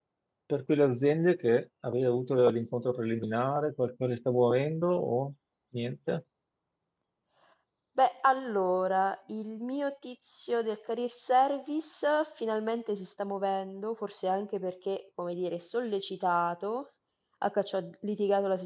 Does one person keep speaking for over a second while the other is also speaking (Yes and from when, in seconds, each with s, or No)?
No